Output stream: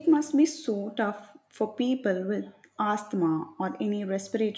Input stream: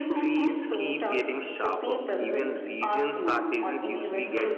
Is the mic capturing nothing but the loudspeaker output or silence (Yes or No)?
No